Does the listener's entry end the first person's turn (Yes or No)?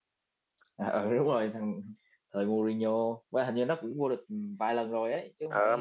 Yes